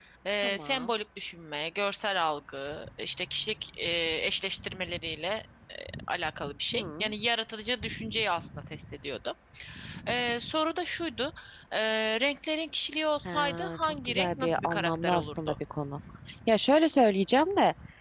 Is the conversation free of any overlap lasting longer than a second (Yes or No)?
No